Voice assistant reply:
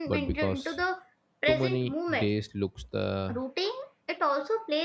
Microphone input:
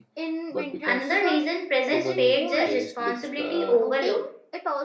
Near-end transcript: Another reason presence fades is responsibility overload.

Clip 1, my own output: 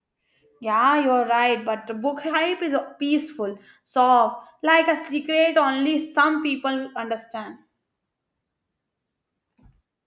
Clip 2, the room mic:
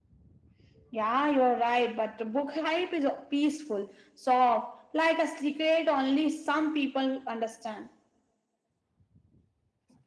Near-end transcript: none

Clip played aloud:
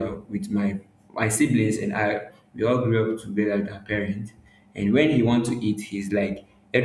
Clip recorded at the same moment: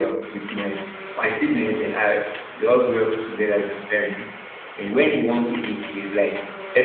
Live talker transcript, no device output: none

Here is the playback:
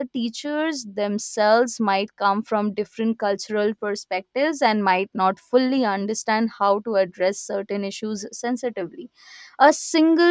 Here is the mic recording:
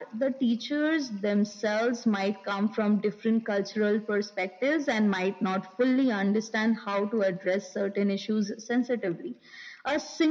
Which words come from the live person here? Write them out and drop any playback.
none

